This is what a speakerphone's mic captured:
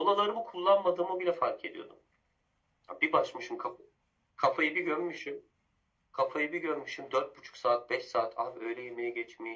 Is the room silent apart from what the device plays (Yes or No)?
Yes